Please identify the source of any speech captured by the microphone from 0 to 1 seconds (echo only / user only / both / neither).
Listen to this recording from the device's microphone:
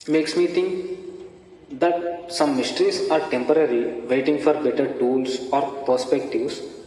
echo only